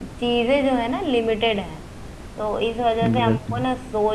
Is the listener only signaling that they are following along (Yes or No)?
Yes